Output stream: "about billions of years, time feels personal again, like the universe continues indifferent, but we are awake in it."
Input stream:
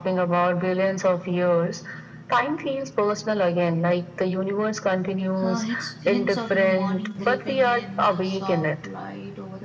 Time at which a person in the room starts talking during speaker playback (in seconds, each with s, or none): 5.4 s